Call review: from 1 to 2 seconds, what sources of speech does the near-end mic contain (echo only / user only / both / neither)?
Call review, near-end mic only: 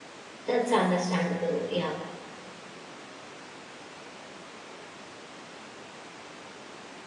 user only